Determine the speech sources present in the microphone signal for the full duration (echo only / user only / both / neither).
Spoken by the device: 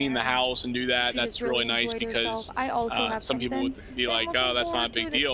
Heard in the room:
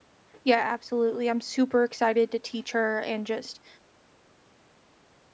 user only